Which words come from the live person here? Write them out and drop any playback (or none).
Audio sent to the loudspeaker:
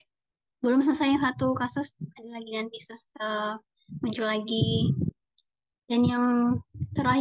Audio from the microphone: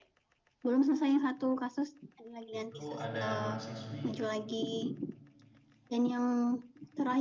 itu ada mahasiswi